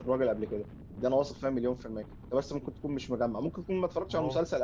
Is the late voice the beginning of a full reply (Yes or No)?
No